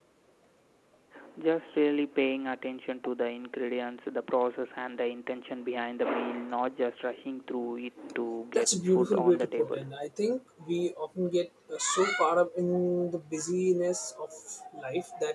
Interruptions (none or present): present